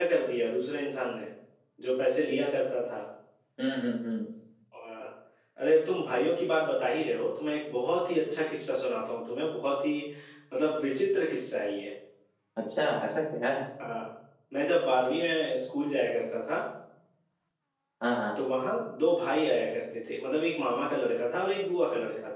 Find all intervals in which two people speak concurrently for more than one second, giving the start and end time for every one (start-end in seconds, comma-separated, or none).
none